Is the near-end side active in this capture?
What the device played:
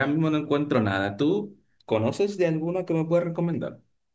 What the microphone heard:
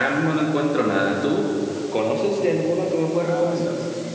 Yes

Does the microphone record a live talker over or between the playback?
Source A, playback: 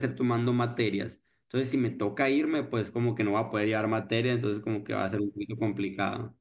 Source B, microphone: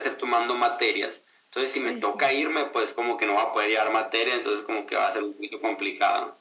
Yes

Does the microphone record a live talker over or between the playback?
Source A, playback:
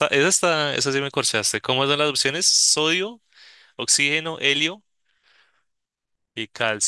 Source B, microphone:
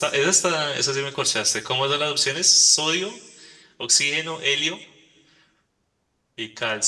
No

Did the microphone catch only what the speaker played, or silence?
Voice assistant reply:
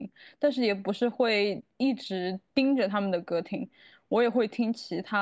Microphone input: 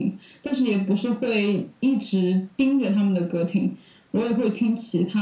Yes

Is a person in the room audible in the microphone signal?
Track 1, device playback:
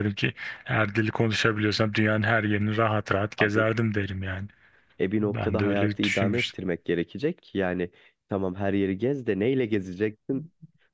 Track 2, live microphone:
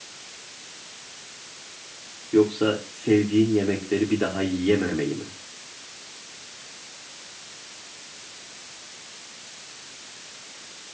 Yes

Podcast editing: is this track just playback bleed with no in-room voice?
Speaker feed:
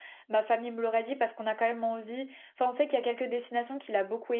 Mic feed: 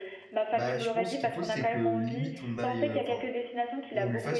No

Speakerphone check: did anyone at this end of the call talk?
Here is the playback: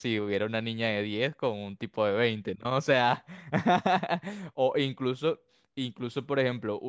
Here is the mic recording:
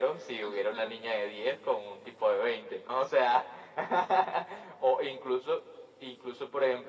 Yes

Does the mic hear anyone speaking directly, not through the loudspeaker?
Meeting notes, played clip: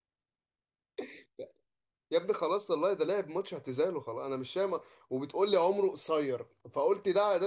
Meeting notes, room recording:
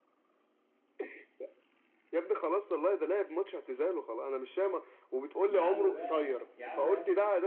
Yes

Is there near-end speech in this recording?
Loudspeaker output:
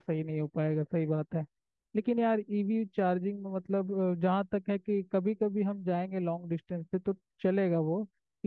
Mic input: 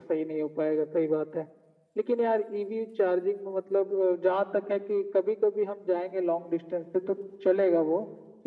No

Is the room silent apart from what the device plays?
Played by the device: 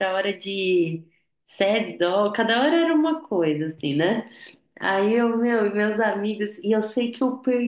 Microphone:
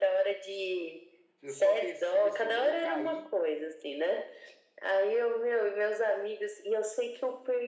No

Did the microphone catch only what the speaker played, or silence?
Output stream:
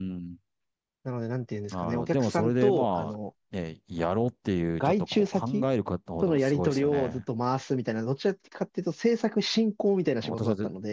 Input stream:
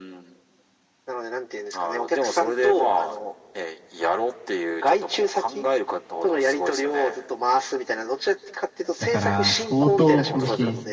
No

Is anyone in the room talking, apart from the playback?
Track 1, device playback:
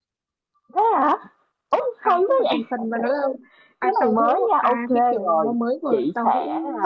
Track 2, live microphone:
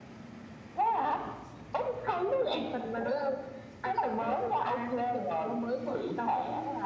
No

